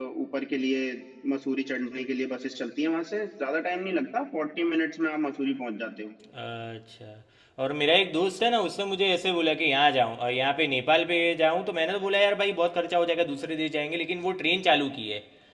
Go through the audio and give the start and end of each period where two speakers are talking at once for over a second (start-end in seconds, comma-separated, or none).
none